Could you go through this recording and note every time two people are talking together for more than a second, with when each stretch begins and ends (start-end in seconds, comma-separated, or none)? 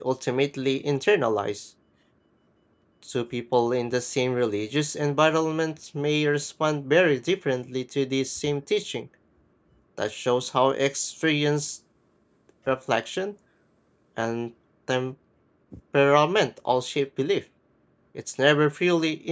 none